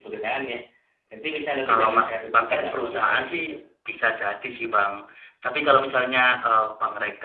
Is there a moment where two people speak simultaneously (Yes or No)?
Yes